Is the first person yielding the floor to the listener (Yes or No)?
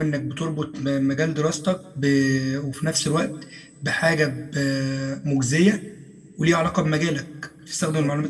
No